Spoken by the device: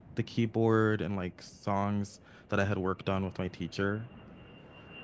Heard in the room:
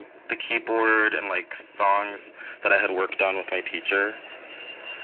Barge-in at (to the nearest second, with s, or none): none